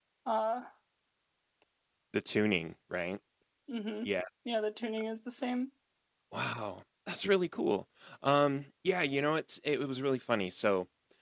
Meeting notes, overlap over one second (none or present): none